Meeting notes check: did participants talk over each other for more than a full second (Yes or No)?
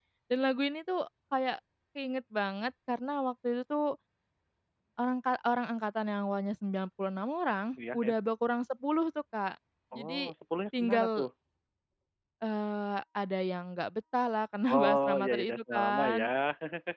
Yes